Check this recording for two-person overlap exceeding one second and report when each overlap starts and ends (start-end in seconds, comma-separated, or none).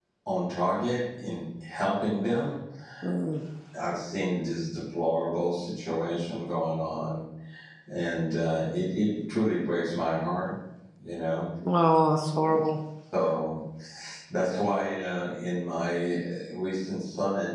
none